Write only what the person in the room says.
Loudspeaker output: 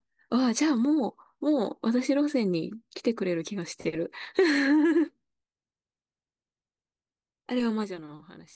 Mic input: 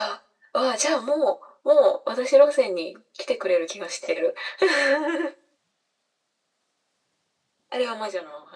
none

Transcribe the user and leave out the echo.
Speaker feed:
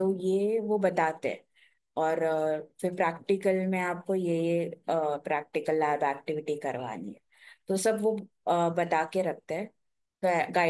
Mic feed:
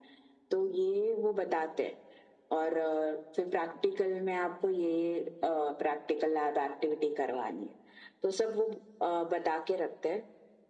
none

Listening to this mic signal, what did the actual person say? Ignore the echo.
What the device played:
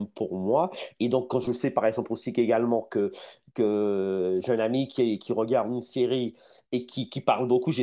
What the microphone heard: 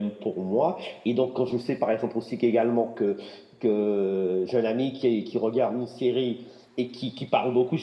none

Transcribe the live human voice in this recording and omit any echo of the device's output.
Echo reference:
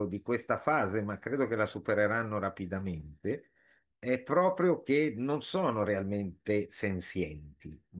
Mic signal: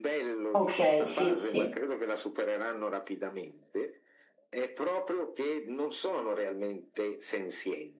ok, sì, sì.

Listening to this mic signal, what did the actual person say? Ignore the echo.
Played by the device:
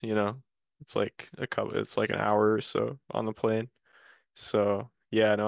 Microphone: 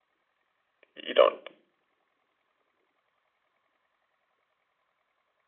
you don't

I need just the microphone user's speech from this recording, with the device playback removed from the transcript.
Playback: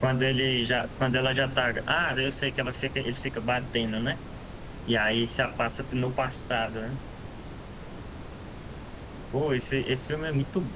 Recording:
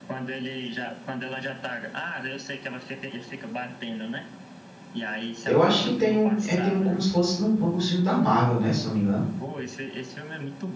Eu acho que tem um, é, tem um como se fosse num, num gostinho da Marvel, né, se não me engano.

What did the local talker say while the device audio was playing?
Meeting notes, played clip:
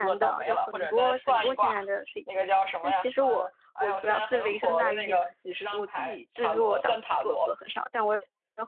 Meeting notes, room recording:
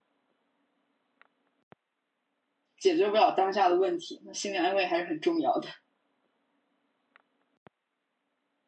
解决不了当下的问题，那心理安慰还是很重要的。

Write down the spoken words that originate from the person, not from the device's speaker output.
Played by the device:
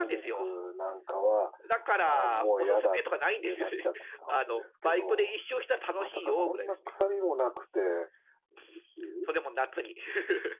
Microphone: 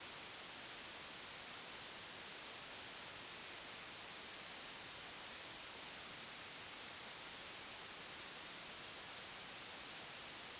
none

